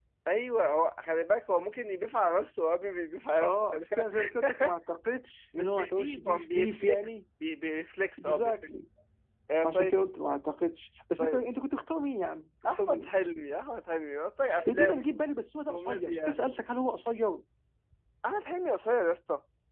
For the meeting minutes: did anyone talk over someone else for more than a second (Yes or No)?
Yes